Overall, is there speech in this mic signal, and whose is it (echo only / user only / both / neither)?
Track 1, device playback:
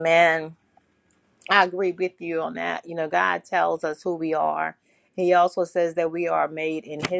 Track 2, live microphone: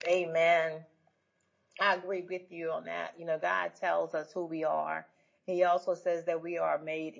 echo only